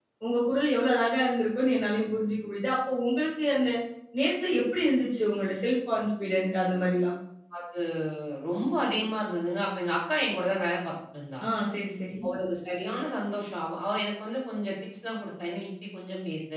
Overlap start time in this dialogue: none

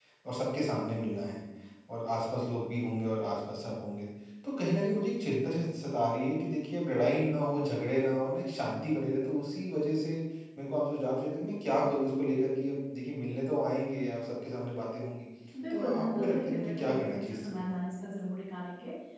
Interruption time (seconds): 15.7 s

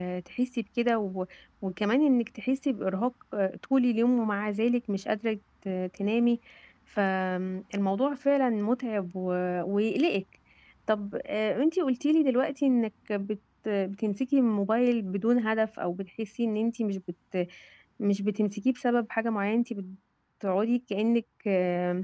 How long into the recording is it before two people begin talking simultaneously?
none

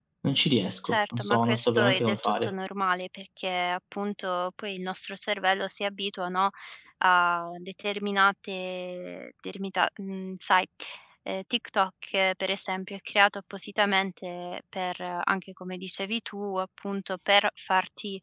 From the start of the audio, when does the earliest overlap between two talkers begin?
0.8 s

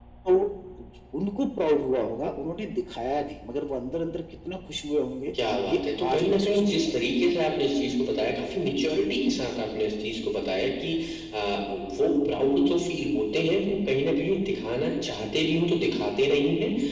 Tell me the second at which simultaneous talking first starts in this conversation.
5.6 s

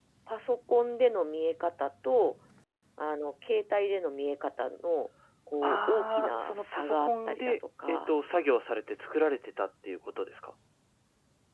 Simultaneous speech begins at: 5.6 s

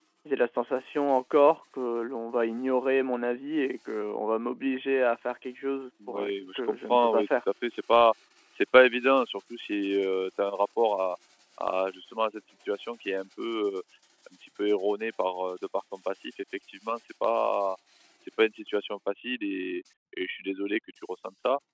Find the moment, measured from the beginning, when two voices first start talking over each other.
6.0 s

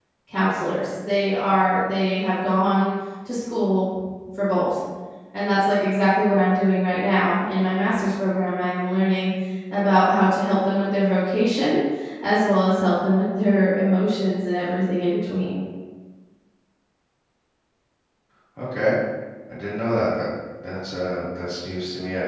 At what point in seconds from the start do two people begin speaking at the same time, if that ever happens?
none

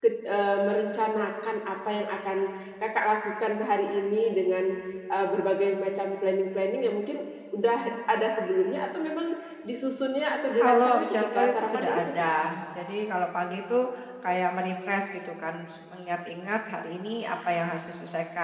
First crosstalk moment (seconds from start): 10.6 s

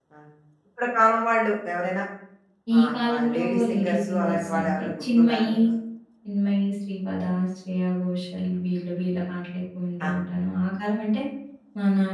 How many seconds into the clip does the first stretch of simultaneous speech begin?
2.8 s

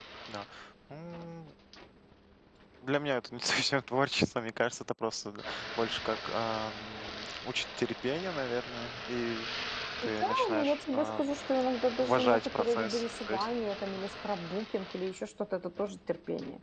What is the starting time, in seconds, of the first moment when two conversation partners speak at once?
10.0 s

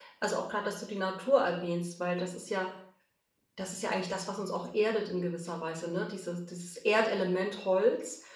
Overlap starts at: none

